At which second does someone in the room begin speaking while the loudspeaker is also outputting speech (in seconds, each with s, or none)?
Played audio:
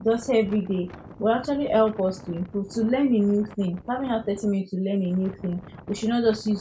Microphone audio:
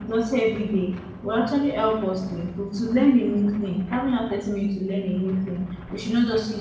none